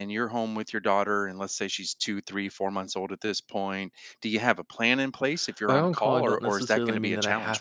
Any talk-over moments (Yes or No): Yes